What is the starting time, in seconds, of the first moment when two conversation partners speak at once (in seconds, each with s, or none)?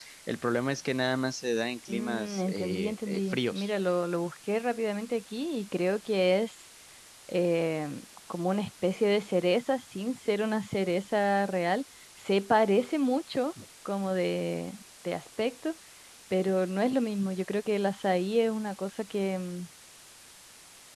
1.9 s